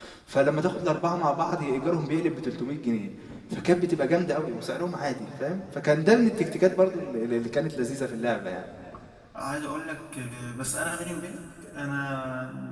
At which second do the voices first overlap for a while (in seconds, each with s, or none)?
none